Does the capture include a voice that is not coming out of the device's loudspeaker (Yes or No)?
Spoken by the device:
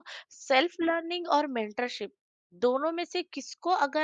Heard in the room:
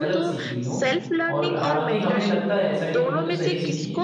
Yes